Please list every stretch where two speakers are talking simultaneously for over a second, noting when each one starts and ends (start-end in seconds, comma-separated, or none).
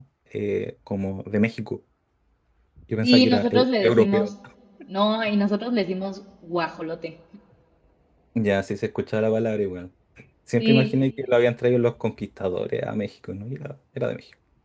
3.0-4.2